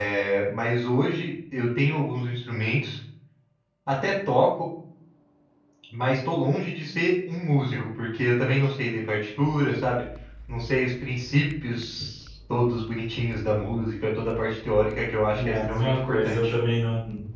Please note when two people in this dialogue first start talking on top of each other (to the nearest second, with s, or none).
15 s